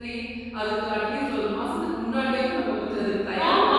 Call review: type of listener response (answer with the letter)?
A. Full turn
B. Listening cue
A